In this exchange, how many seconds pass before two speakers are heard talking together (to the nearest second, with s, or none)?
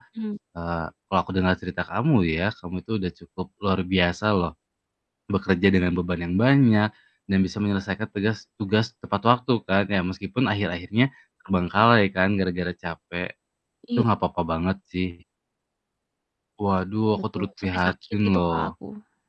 17 s